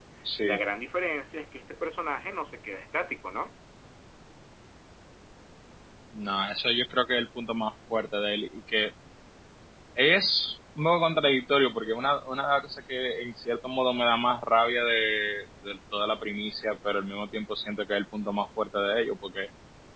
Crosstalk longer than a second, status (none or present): none